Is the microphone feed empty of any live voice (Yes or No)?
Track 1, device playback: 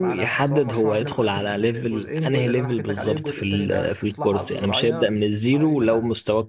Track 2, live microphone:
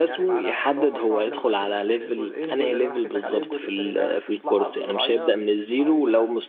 Yes